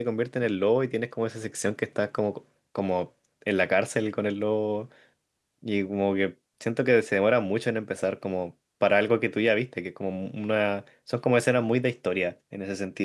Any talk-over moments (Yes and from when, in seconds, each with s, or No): No